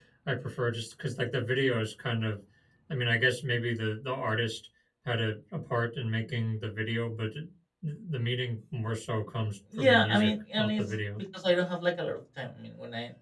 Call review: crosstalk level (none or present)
present